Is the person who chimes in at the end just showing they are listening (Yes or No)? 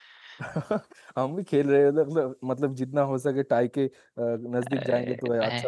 No